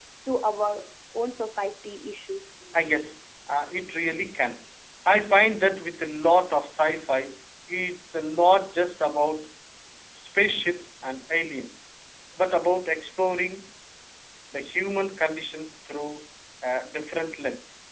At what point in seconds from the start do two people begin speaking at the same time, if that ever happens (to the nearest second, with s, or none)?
none